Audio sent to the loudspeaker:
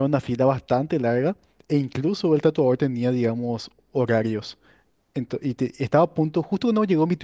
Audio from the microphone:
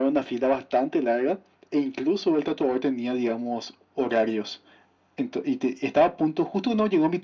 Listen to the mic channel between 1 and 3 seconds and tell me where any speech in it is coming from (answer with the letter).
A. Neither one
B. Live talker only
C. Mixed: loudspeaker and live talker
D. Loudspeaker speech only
D